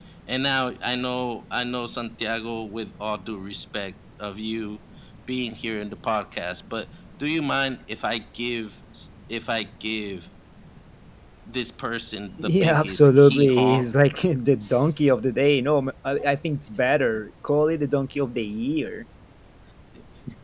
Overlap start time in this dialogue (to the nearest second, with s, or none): 12 s